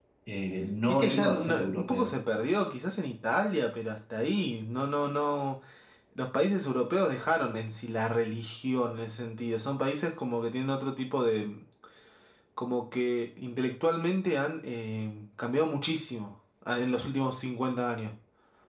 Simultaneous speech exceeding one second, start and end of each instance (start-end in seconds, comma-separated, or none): 0.9-2.1